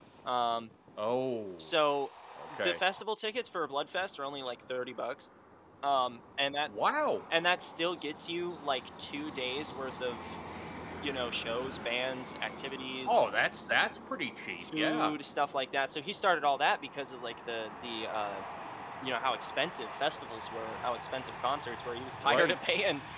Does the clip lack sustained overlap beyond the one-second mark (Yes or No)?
Yes